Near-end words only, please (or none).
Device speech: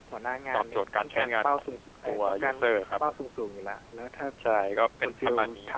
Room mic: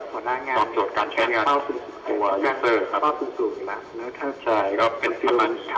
none